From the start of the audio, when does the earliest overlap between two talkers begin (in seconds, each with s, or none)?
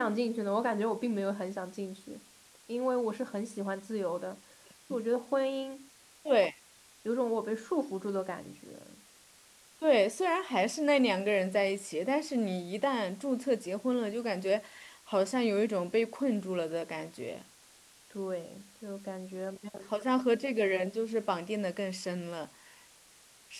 none